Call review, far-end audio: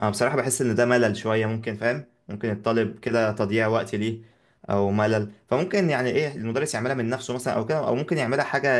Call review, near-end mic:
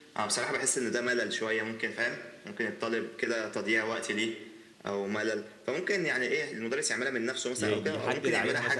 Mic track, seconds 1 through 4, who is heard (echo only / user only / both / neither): echo only